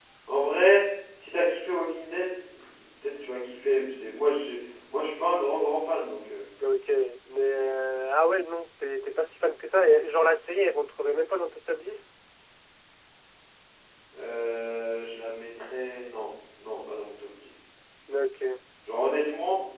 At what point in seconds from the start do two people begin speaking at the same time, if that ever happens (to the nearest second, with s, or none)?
none